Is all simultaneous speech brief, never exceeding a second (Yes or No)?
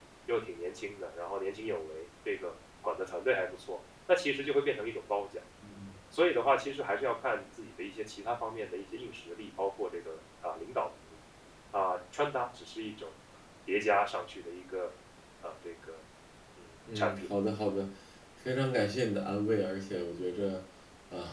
Yes